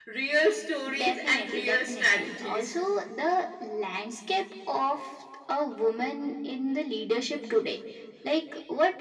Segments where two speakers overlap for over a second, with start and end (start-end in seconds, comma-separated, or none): 1.0-2.8